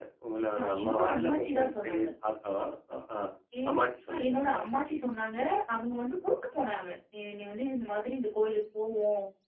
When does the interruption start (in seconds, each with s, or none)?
0.6 s